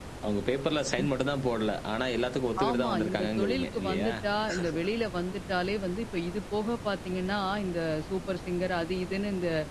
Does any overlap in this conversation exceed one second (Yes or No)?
Yes